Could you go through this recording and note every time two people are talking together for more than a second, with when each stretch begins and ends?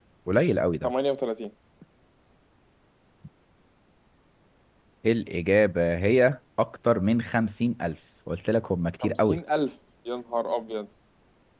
none

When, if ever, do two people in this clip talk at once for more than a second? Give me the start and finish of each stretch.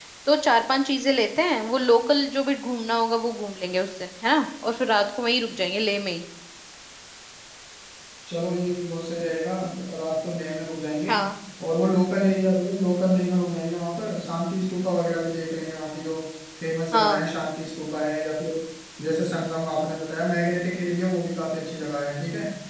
none

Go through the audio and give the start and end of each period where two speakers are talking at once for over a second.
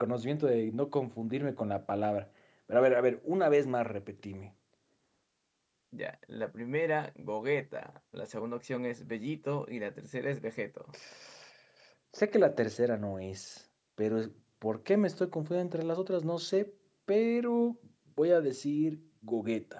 none

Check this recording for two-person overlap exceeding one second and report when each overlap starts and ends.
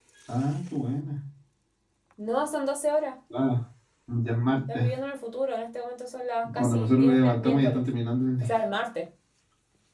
6.5-7.8

